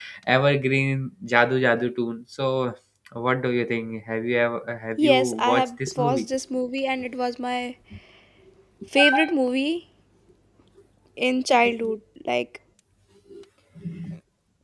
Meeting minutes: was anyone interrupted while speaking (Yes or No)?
Yes